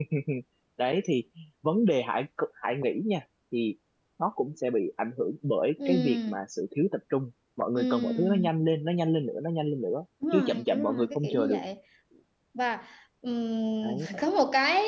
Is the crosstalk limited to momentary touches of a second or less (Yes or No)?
No